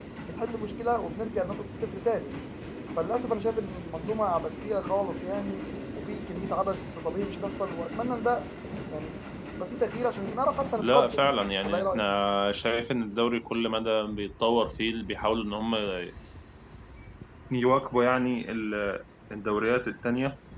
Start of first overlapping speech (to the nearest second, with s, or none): 11 s